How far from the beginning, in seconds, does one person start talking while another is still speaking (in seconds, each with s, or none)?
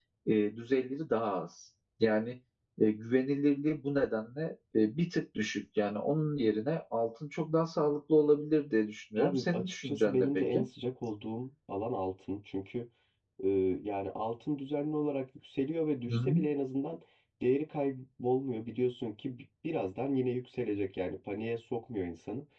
9.2 s